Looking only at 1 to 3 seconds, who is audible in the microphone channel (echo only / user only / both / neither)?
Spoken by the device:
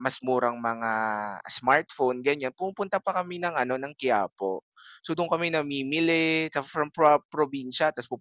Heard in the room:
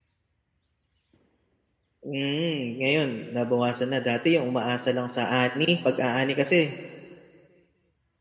user only